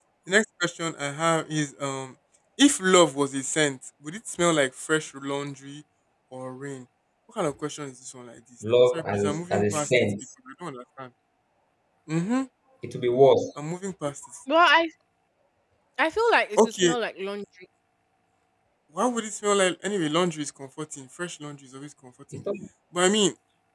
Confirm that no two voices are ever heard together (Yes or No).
No